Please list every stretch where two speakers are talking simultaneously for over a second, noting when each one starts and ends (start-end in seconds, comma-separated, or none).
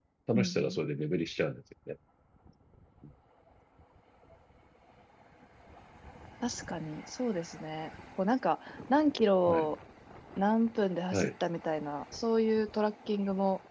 none